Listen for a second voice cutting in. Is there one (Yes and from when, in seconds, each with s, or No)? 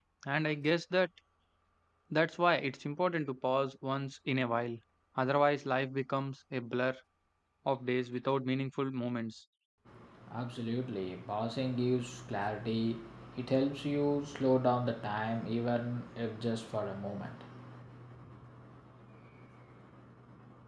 No